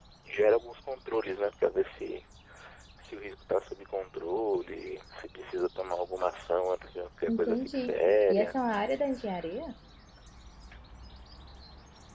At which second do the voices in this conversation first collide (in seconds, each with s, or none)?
7.3 s